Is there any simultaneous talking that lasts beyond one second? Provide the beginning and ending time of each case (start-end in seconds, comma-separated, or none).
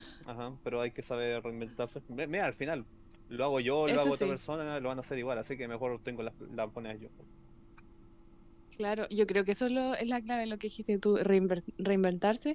none